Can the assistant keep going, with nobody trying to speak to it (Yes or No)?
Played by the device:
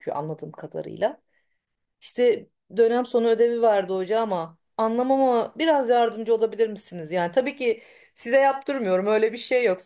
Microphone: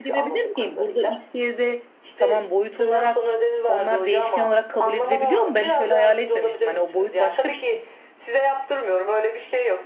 No